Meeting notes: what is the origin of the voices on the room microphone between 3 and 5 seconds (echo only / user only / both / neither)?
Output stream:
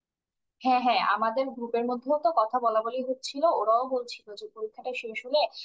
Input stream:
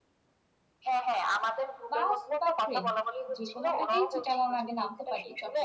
both